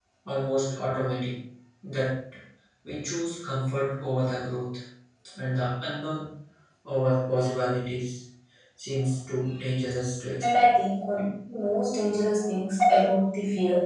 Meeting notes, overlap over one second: none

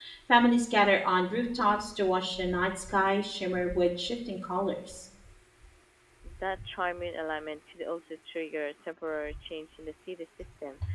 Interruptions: none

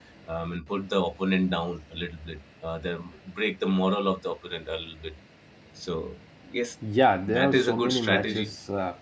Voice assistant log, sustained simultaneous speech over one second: present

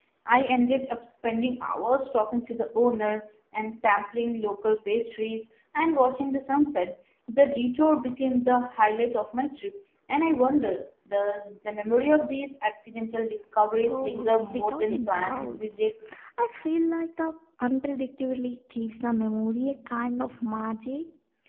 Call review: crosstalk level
present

